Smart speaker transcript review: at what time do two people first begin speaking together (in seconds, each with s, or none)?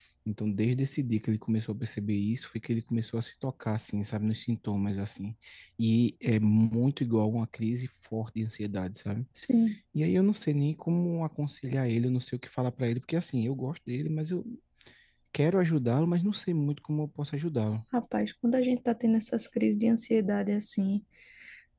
none